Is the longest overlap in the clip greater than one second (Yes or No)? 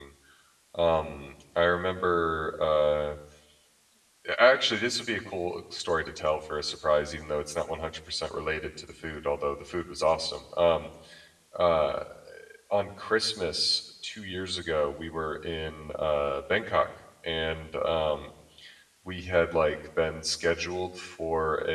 No